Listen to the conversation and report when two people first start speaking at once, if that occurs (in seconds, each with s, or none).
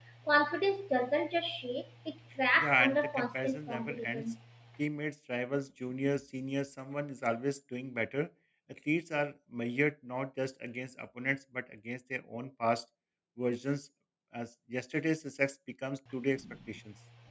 2.6 s